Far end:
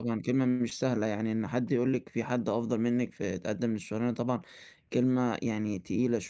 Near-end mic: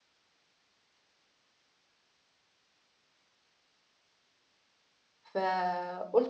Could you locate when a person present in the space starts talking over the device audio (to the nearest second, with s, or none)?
5 s